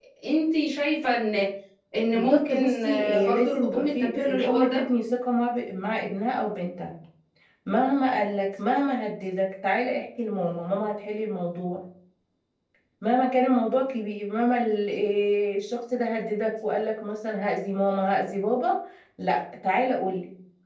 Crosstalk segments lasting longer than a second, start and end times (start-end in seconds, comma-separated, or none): 2.1-4.8